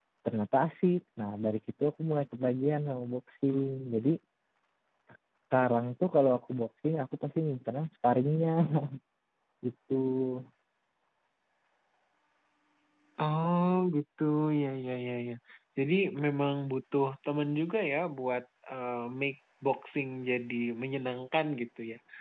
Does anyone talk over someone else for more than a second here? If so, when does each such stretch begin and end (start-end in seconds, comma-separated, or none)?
none